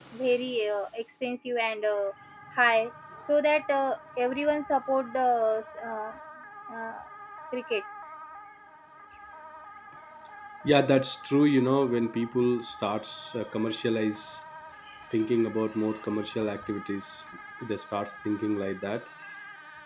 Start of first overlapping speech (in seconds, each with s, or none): none